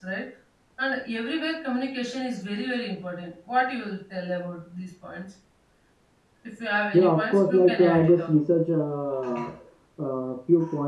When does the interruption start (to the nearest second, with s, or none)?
7 s